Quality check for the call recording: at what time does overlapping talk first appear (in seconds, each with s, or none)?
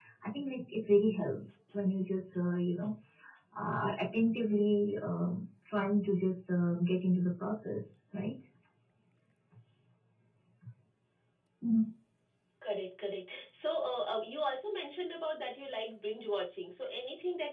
none